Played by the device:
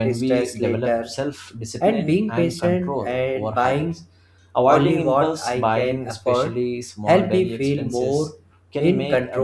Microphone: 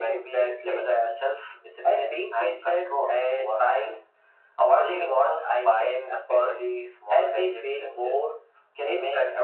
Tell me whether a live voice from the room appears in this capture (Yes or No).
No